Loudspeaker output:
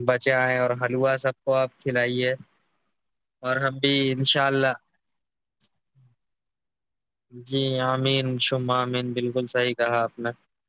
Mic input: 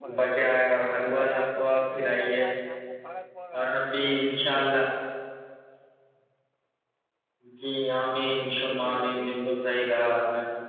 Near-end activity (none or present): present